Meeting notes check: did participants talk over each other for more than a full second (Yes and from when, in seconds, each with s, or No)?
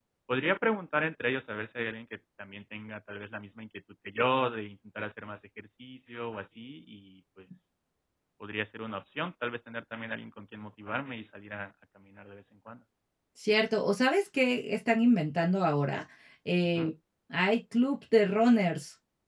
No